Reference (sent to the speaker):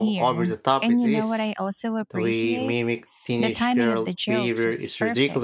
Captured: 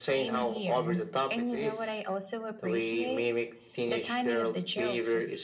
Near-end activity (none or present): none